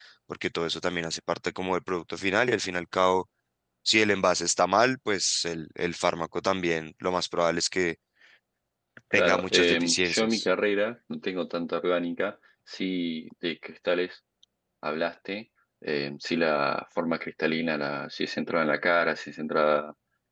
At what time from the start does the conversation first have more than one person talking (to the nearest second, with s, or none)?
9 s